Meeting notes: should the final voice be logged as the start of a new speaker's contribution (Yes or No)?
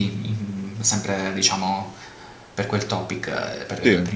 No